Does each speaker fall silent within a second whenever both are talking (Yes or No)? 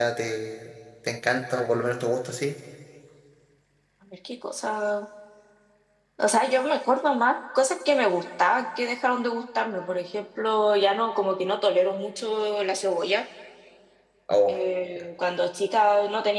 Yes